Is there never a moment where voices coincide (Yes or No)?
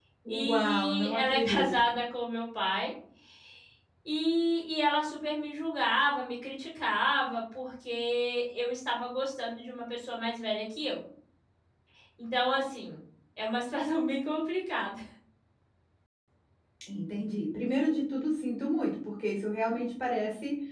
No